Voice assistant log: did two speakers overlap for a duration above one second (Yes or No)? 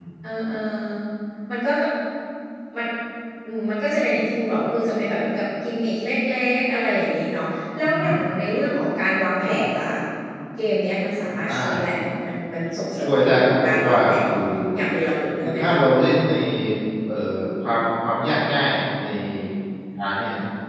Yes